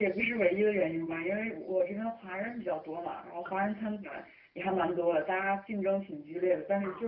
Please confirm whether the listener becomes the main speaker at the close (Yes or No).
No